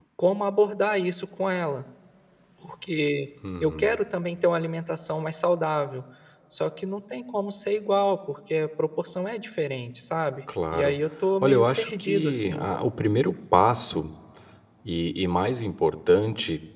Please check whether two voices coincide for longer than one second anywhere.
Yes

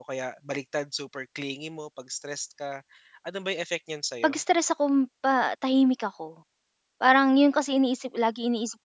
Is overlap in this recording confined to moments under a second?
Yes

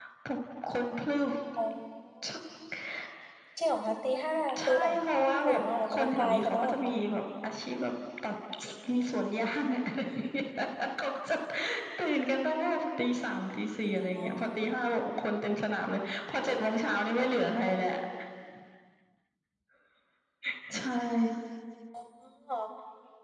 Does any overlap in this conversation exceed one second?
Yes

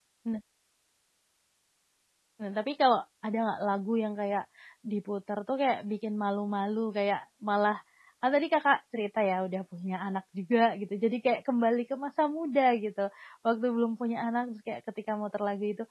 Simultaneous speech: No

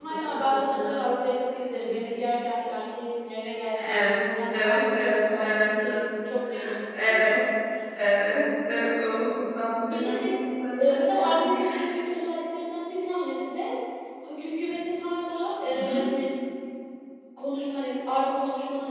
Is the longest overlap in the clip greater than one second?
Yes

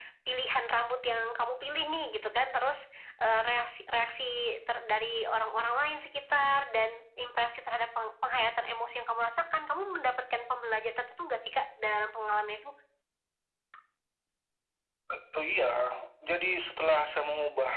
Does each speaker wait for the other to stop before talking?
Yes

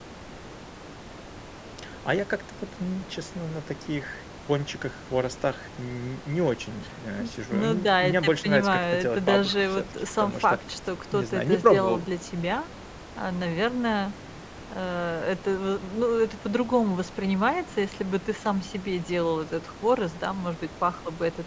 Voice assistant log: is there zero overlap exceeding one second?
No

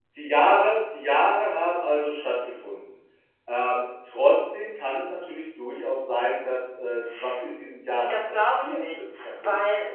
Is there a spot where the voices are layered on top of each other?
Yes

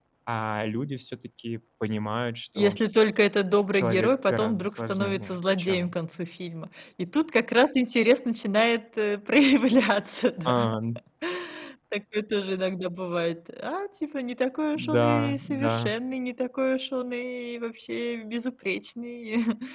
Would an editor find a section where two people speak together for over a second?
Yes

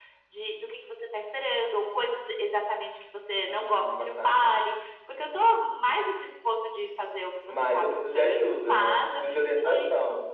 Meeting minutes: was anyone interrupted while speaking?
Yes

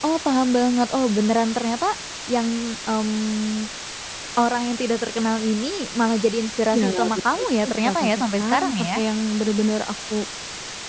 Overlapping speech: Yes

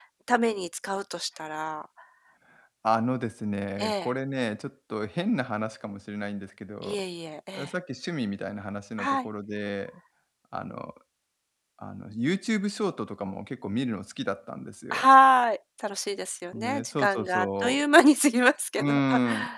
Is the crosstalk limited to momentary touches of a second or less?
No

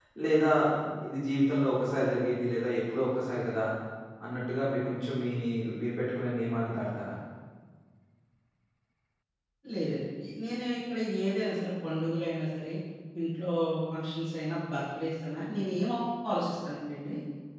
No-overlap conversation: Yes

